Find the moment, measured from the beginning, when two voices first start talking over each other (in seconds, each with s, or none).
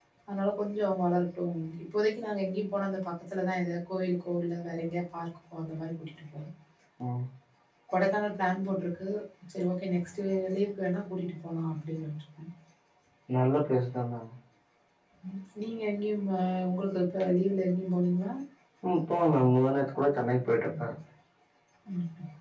none